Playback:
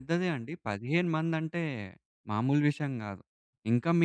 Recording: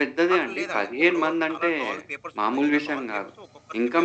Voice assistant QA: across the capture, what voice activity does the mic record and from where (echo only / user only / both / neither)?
both